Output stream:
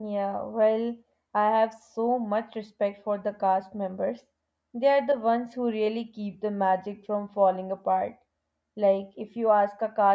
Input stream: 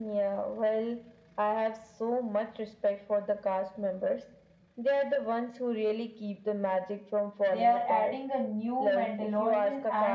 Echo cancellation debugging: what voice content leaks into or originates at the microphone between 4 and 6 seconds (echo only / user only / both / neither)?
echo only